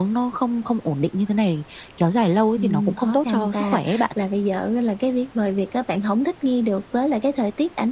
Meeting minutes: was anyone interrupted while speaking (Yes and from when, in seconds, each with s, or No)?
Yes, from 2.6 s